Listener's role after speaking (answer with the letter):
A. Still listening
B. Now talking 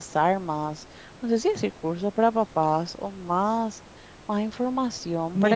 B